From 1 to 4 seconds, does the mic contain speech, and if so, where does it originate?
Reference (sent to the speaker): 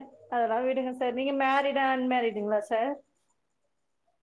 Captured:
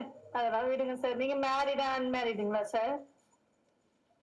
echo only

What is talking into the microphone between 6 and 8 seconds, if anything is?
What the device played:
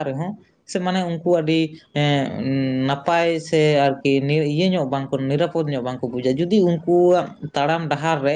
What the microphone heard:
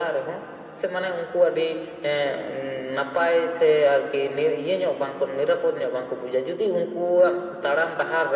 echo only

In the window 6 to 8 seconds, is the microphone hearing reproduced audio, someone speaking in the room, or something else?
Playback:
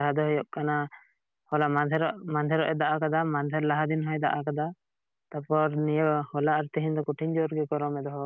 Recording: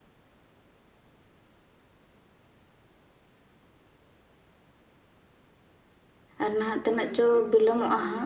user only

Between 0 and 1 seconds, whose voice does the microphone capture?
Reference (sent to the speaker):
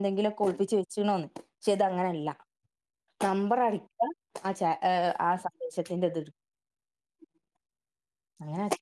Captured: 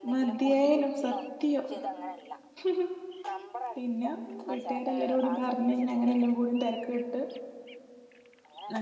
both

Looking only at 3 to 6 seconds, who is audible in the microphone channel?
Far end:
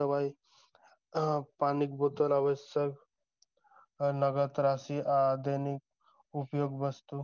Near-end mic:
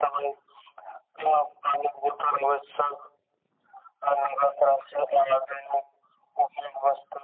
echo only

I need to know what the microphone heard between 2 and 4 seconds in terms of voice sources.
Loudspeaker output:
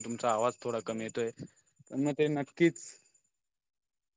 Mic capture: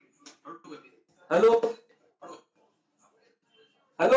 user only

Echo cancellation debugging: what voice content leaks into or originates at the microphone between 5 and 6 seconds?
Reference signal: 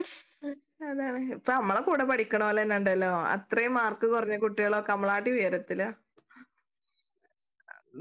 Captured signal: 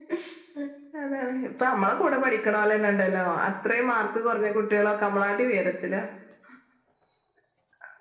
echo only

